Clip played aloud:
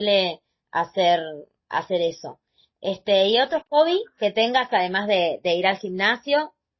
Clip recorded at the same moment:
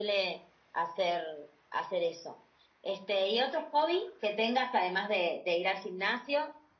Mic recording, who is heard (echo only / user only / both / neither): echo only